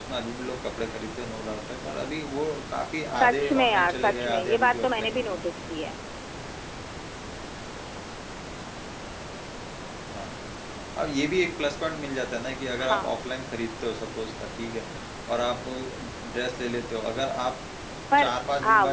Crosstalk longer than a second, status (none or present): present